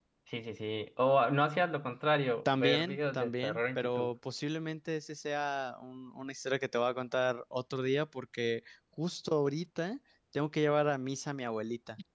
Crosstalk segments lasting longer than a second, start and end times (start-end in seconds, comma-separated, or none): 2.4-4.1